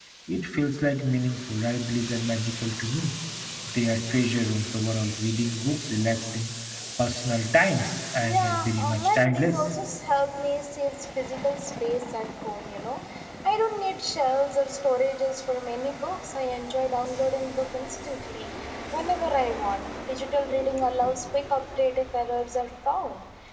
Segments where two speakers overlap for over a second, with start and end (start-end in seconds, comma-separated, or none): 8.2-9.6